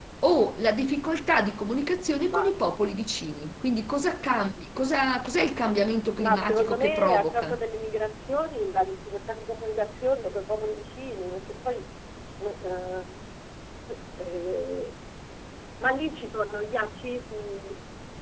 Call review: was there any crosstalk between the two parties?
Yes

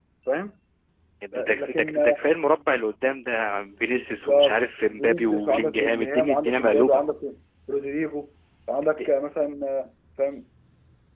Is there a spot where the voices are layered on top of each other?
Yes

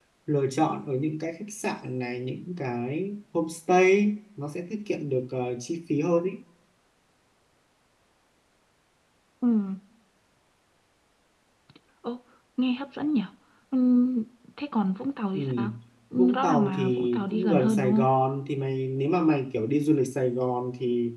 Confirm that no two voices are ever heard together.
No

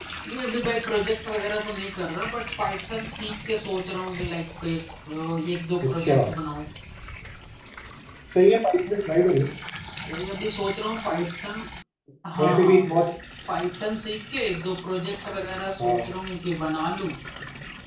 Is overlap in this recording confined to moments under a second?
Yes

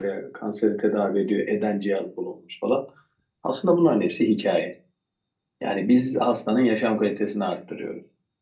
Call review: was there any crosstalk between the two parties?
No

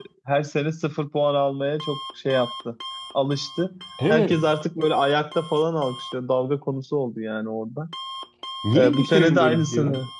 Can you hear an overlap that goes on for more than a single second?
Yes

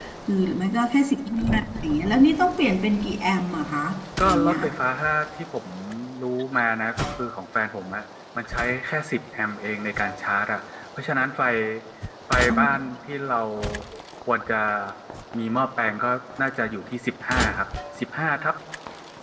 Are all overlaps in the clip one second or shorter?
Yes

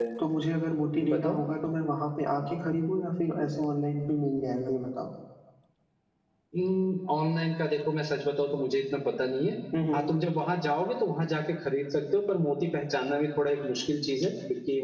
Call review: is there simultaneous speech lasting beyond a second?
No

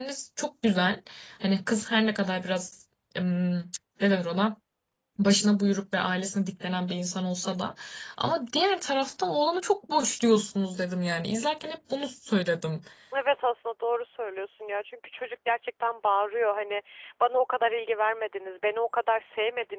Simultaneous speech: No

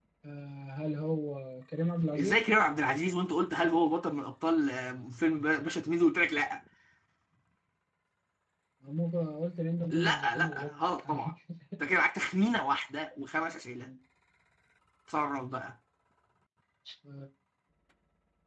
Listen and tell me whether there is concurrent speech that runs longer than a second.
Yes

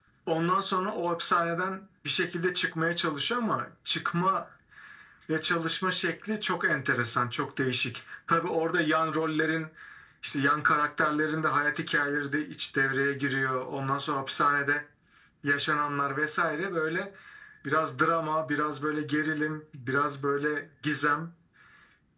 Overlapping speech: No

